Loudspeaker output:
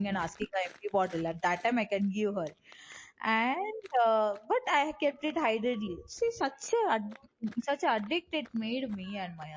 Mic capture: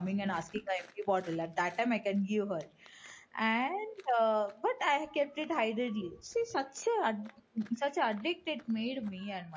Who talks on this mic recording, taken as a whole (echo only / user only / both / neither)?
echo only